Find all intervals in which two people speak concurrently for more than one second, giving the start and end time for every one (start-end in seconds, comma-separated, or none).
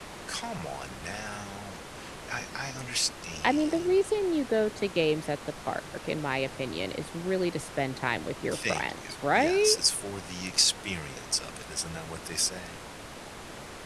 8.5-9.8